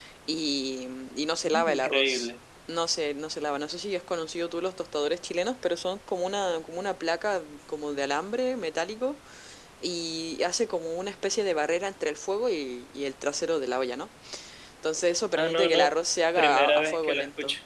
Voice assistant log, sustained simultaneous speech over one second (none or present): present